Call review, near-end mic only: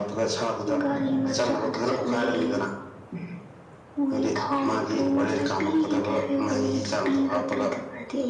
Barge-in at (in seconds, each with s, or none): none